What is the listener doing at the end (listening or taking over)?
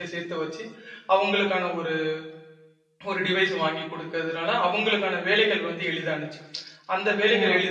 listening